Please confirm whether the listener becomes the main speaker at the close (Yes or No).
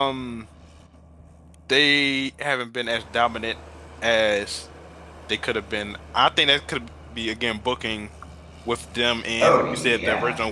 No